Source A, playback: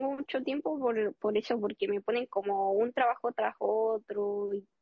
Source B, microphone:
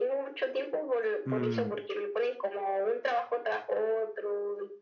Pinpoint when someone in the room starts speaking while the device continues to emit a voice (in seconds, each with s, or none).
1.2 s